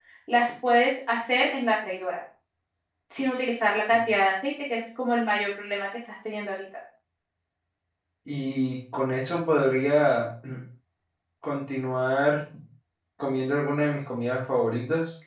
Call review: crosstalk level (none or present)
none